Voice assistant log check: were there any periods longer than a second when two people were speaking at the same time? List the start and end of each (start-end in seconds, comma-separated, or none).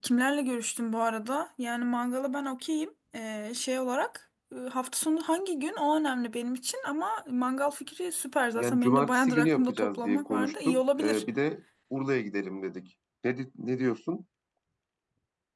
8.6-11.2